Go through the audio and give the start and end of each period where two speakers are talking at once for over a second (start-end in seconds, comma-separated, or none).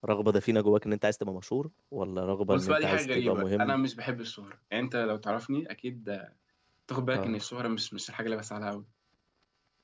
2.5-3.8